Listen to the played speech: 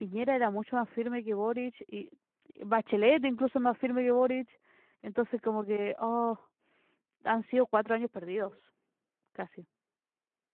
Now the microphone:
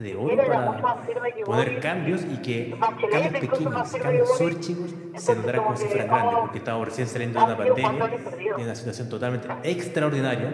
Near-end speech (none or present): present